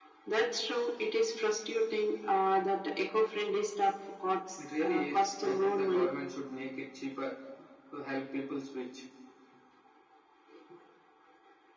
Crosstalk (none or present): present